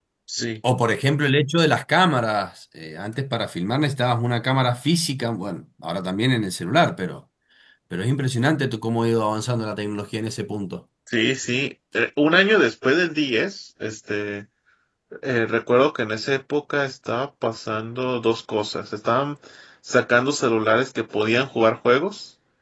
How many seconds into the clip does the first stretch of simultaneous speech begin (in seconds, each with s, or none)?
none